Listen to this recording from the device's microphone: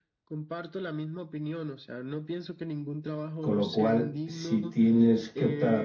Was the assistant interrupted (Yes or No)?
Yes